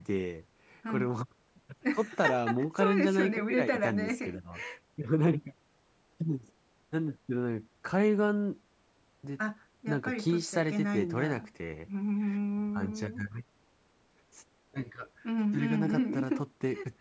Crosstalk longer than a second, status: present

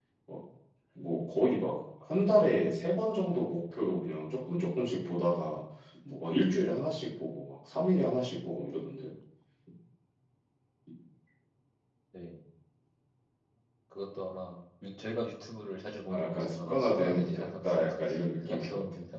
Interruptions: present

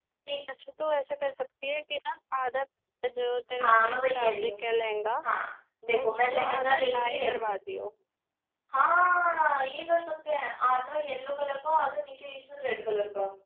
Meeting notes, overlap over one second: present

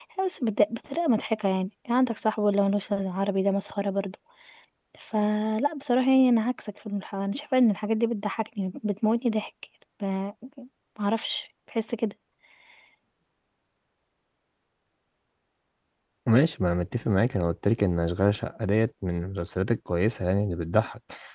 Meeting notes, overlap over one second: none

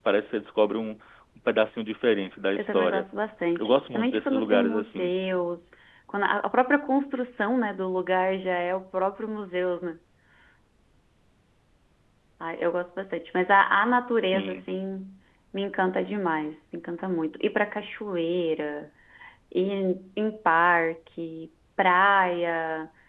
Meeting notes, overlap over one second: present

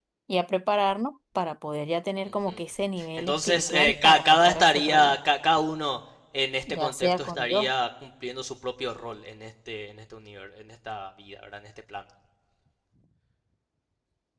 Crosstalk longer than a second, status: present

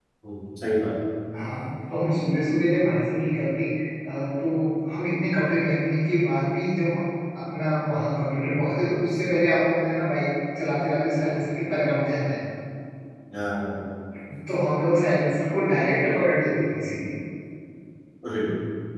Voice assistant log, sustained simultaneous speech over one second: none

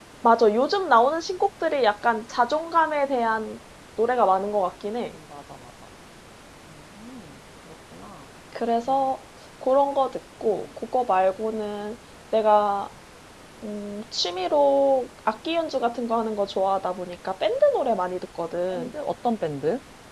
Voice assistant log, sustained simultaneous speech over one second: none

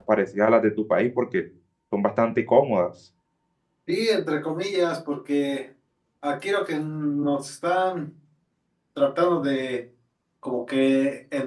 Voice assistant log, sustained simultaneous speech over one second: none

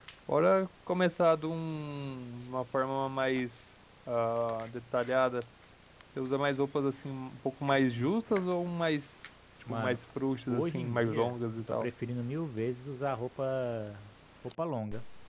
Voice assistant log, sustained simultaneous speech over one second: present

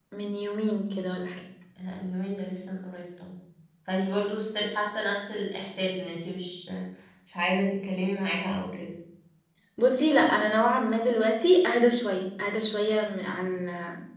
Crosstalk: none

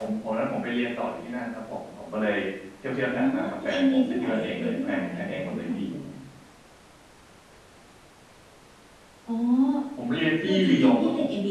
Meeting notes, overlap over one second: present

